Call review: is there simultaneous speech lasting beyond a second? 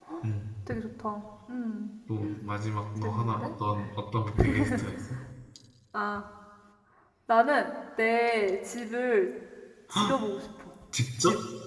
No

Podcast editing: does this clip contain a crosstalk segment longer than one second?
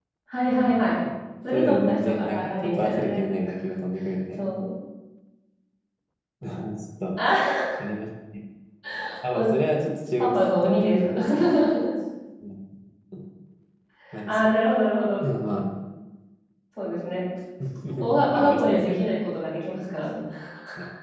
Yes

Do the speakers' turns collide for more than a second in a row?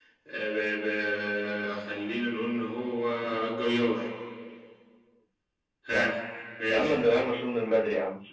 No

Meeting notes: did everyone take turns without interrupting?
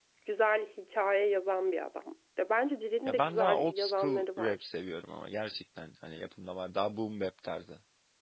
No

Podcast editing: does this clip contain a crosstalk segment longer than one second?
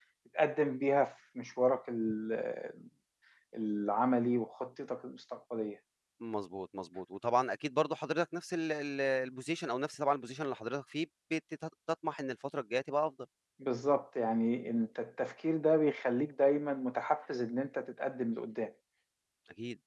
No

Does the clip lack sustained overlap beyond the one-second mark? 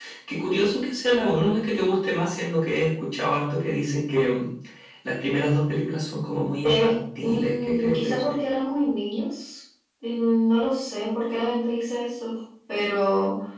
No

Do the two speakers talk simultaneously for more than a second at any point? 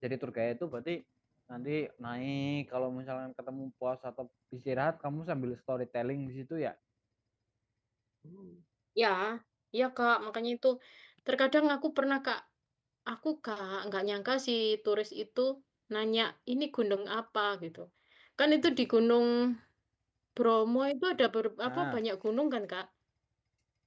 No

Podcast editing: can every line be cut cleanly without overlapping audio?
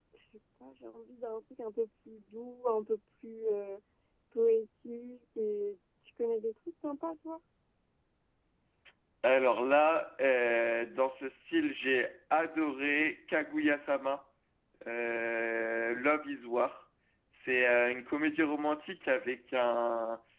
Yes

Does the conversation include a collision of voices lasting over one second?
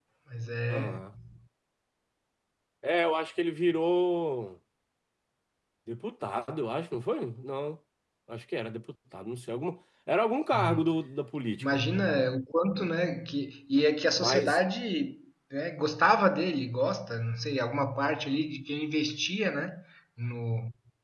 No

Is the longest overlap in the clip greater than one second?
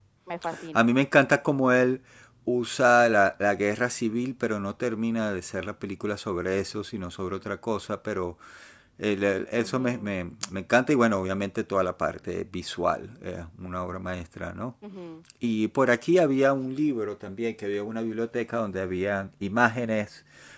No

